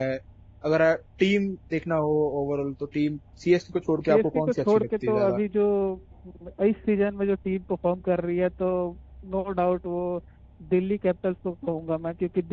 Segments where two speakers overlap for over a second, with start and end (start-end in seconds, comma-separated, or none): 4.1-5.4